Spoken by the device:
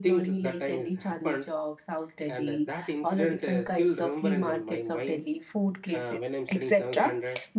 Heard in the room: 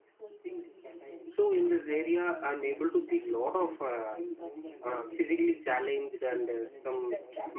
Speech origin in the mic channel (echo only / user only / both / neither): both